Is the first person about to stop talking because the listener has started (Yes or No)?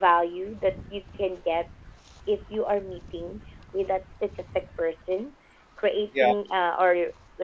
No